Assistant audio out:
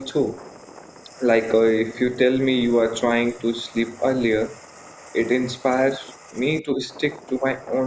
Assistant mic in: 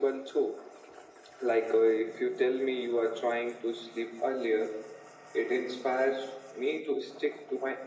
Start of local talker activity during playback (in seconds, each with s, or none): none